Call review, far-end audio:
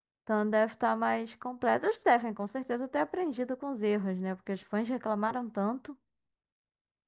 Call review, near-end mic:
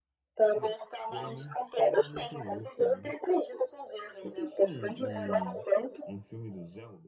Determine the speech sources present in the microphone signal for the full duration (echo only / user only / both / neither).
both